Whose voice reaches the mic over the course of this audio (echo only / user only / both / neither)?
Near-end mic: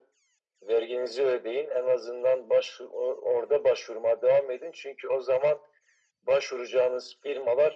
echo only